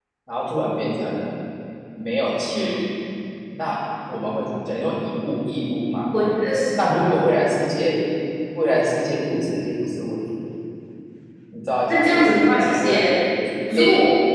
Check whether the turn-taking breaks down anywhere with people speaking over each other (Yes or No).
Yes